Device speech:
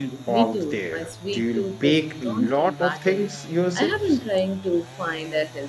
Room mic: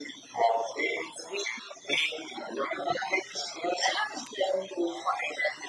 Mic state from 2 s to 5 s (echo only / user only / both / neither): echo only